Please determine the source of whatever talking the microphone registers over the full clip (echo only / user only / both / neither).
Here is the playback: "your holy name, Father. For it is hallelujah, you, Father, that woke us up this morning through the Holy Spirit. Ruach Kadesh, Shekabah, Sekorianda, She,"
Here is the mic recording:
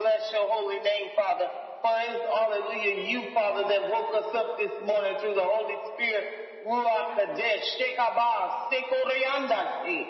echo only